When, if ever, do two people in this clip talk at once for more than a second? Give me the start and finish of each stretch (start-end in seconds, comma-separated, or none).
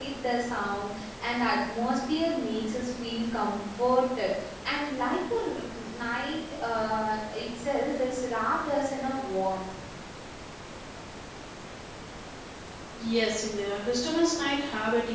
none